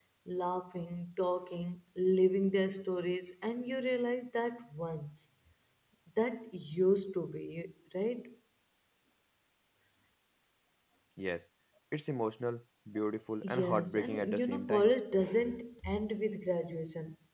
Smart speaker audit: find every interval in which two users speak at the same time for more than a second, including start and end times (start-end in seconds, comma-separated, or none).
13.4-14.9